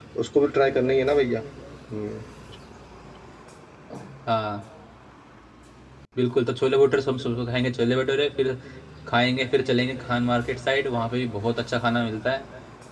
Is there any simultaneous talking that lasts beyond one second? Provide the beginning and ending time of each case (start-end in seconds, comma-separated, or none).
none